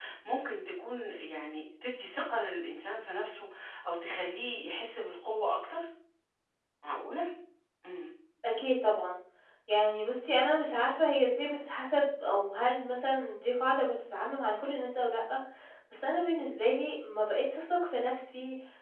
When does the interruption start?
none

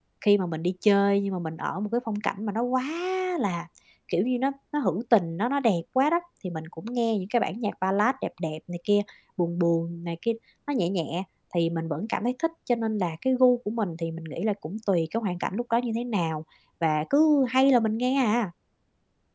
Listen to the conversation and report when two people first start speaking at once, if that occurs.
none

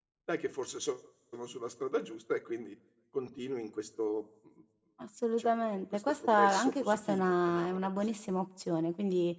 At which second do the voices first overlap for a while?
5 s

